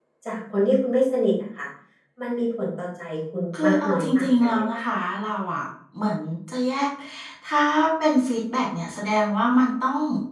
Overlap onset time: 4 s

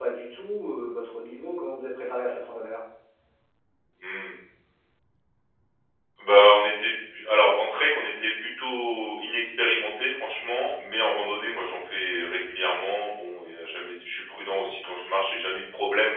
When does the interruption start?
none

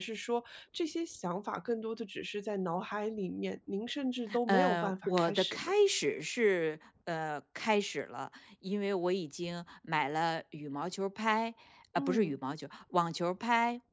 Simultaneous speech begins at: 4 s

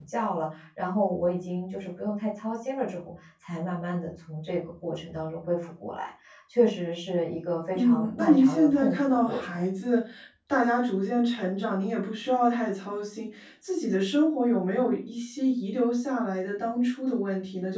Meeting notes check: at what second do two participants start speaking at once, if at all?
8 s

